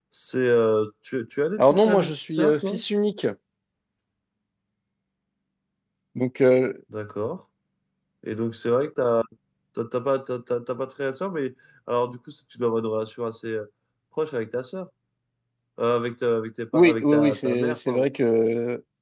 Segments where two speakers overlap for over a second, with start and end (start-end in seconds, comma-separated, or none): 1.6-2.8, 16.7-18.1